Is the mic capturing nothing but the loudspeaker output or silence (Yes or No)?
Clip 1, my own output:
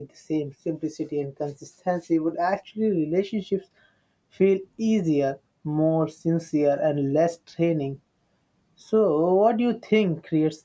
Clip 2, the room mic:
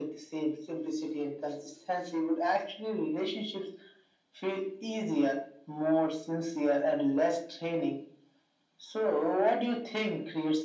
Yes